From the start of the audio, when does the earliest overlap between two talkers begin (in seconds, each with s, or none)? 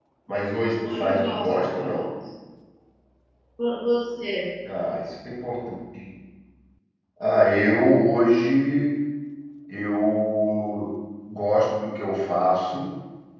0.8 s